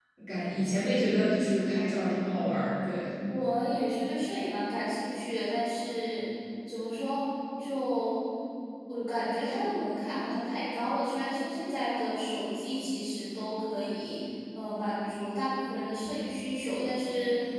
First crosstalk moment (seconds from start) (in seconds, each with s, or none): none